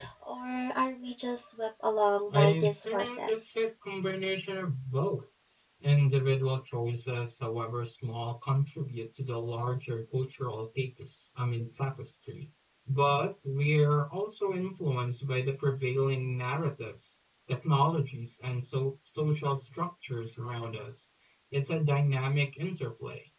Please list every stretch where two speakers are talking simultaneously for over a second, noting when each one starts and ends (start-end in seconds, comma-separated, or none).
2.3-3.5